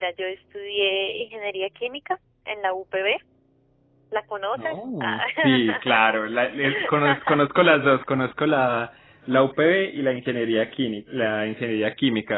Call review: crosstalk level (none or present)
present